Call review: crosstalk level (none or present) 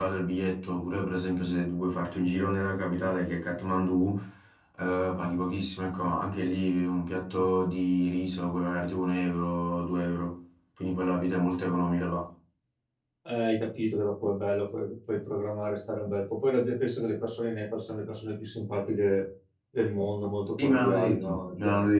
present